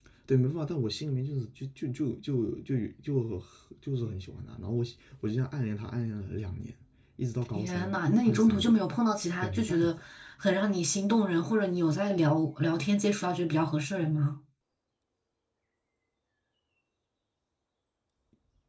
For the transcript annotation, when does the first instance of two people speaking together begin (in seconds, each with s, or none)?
7.5 s